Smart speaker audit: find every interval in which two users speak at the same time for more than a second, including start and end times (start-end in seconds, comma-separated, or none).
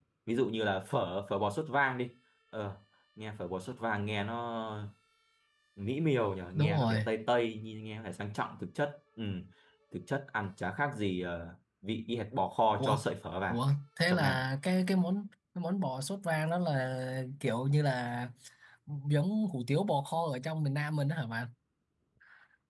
none